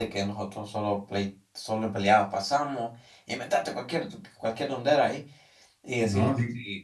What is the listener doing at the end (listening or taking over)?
listening